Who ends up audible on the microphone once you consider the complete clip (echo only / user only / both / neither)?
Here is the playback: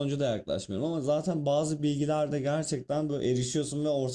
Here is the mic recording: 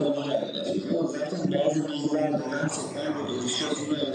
both